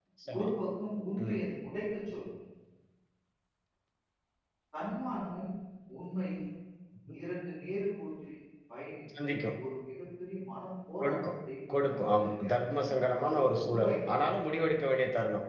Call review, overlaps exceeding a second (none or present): present